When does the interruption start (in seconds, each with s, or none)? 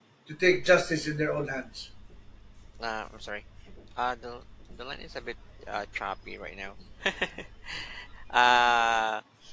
none